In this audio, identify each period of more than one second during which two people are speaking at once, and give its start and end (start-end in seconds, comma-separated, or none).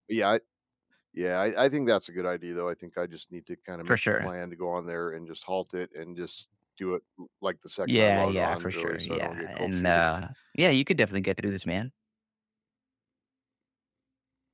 7.9-10.0